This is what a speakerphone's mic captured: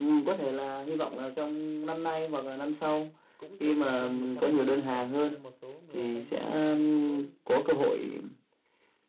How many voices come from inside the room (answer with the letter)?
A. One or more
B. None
A